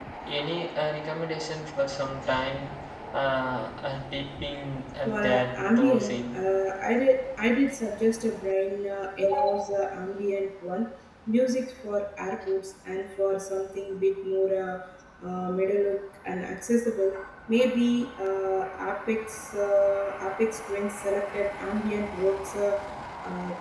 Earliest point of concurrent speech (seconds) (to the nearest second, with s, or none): 5 s